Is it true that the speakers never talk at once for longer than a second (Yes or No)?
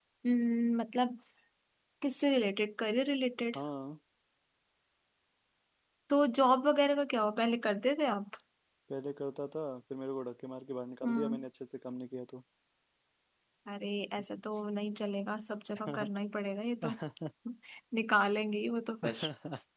Yes